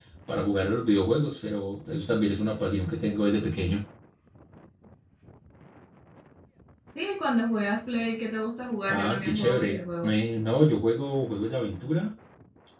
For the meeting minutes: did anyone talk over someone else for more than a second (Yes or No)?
Yes